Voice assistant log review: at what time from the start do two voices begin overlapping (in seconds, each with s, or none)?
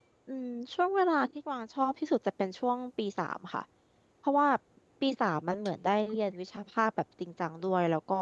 none